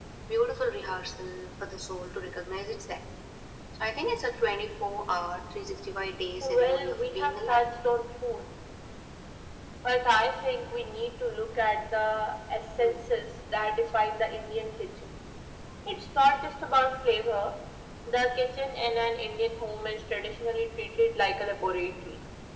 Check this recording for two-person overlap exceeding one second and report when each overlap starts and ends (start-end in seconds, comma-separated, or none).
6.4-7.7